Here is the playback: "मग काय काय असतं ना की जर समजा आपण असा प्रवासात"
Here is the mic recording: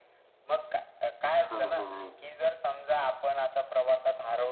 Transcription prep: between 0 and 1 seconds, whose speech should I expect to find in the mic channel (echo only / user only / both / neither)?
echo only